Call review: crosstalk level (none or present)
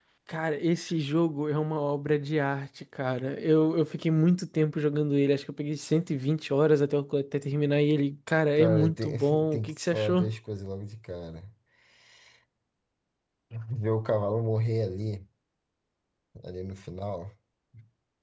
present